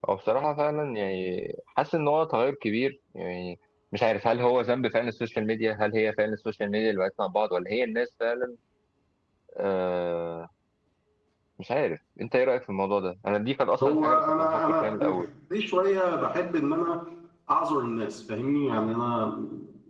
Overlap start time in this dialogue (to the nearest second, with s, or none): 14 s